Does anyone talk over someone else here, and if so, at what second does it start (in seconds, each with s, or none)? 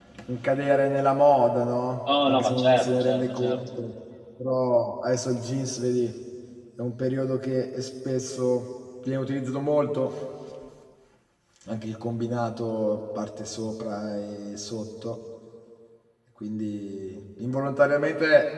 2.1 s